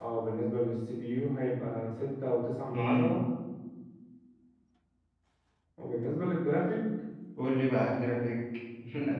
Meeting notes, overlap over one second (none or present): none